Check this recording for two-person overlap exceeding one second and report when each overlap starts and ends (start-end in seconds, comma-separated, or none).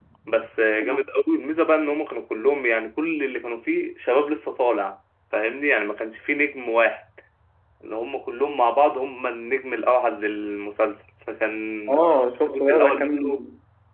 11.9-13.3